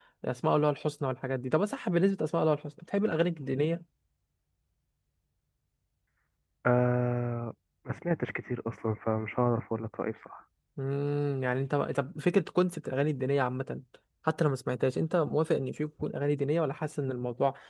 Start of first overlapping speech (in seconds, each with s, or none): none